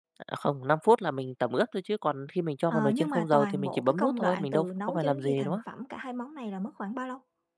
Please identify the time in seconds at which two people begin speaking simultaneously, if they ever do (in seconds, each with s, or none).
2.7 s